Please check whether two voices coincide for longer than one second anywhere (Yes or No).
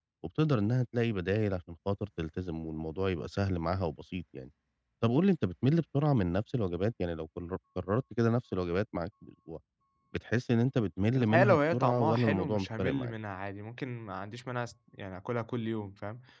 Yes